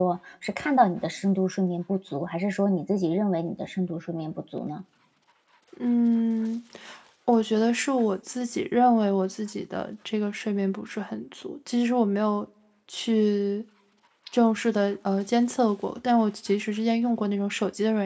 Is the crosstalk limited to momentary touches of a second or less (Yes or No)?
Yes